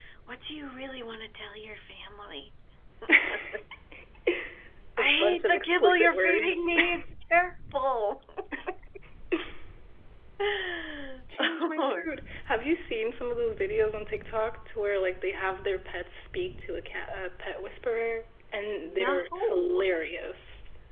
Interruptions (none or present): present